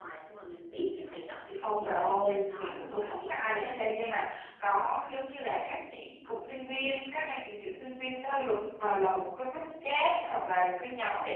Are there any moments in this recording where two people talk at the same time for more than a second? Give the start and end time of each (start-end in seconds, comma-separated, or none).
1.6-4.0